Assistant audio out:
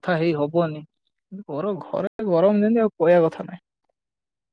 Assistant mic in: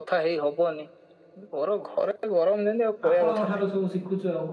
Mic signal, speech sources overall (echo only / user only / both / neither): both